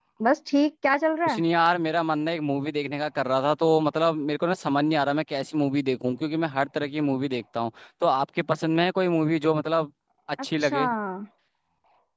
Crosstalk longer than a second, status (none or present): none